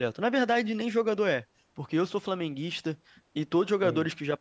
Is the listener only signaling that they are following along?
Yes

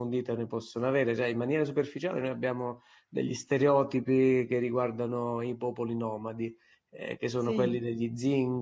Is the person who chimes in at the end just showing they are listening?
Yes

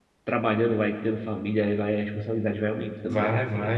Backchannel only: No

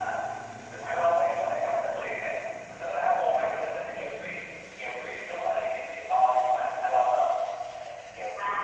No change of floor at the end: No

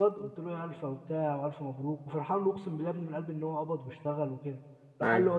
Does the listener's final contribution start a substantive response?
No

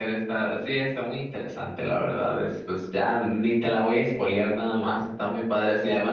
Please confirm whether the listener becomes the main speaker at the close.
No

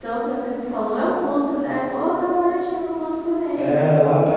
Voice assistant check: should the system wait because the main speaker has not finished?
No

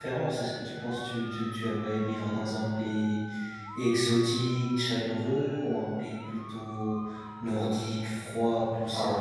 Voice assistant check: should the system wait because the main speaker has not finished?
No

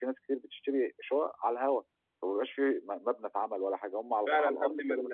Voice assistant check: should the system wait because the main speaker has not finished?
No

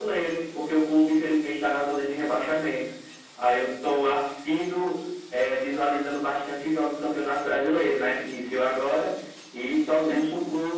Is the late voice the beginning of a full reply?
No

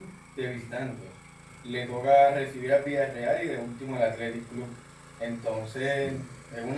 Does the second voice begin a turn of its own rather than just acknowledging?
No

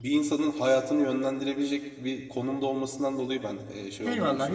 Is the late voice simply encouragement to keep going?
No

